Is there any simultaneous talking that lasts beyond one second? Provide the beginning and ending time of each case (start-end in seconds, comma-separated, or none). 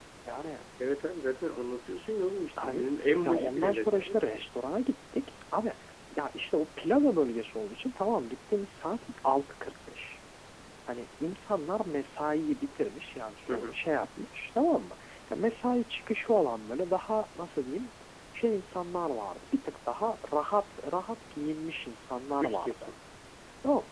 3.2-4.5